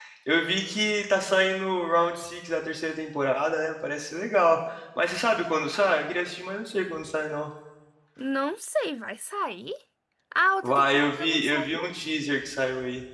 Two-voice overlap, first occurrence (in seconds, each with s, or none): 10.6 s